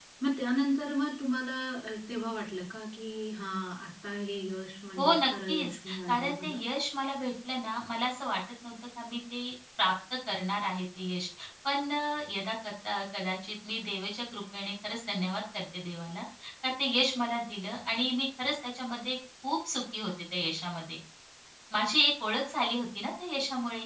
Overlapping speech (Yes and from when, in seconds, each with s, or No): Yes, from 5.0 s